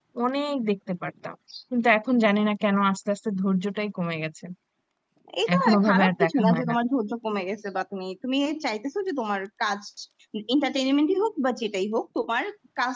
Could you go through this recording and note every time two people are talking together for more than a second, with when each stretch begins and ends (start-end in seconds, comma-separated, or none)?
5.5-6.7